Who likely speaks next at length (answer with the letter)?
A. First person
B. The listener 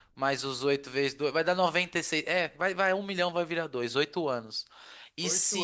A